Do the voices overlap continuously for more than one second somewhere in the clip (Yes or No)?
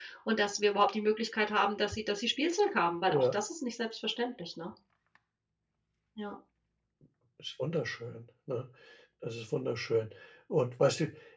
No